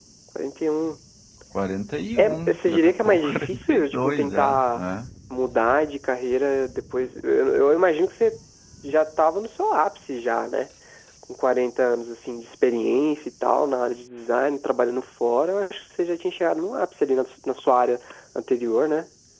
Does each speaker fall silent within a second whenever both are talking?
No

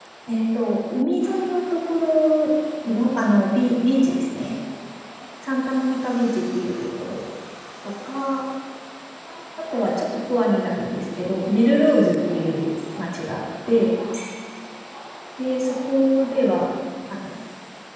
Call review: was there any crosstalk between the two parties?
No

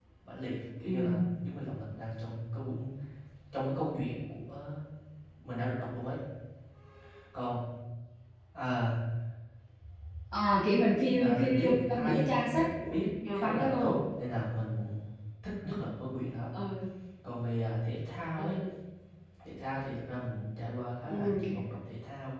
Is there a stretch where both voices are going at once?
Yes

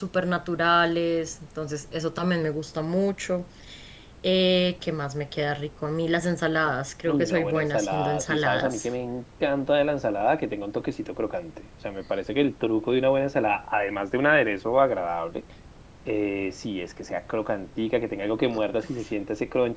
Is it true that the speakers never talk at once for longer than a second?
No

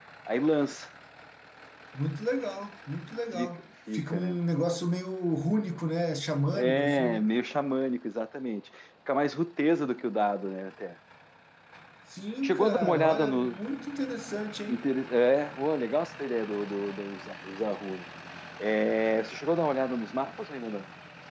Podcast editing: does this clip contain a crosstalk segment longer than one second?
Yes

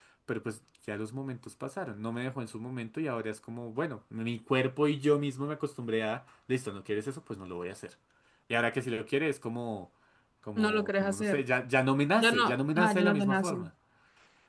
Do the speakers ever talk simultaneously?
Yes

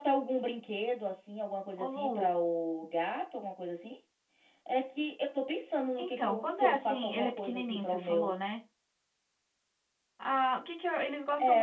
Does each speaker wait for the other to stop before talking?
No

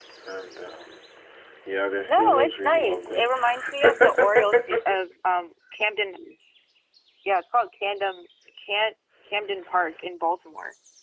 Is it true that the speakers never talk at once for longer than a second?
No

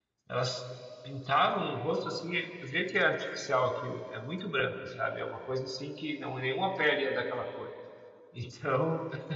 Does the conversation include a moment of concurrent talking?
No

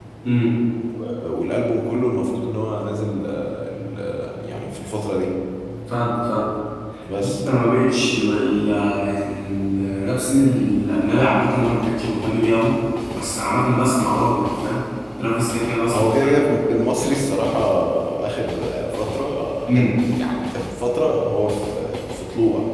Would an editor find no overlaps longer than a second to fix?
Yes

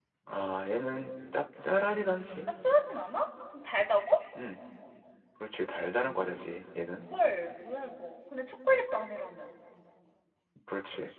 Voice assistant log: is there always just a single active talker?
Yes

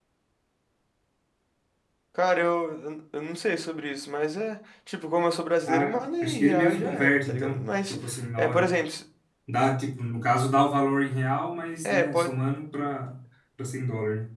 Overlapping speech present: Yes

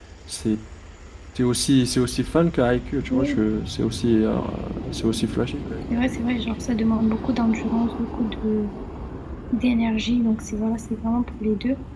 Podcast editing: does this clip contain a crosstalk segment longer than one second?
No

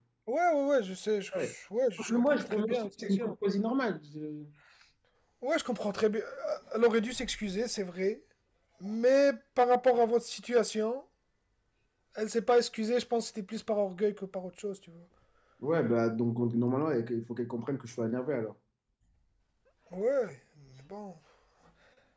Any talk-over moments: Yes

